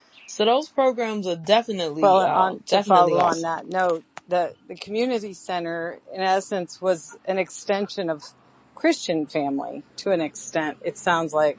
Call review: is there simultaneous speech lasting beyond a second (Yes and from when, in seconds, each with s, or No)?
Yes, from 2.0 s